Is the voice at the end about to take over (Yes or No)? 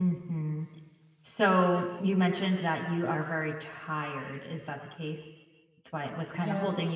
No